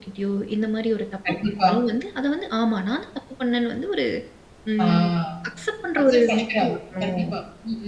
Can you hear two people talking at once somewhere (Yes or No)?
Yes